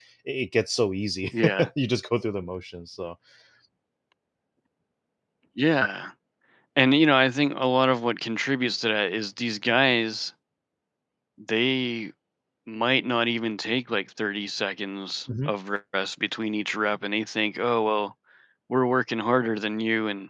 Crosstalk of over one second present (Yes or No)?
No